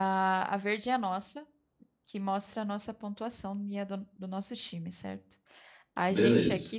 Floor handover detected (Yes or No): No